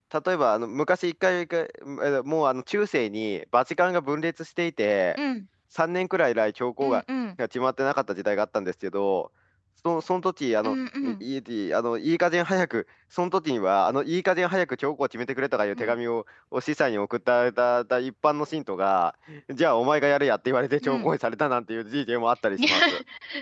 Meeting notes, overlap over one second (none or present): none